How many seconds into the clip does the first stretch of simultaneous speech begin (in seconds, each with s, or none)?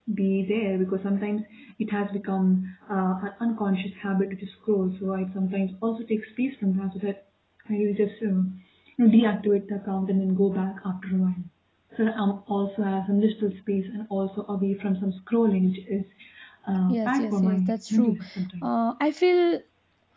16.9 s